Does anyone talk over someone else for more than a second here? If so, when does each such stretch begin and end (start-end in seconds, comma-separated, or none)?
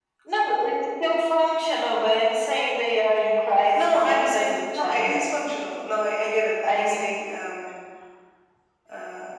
3.8-5.2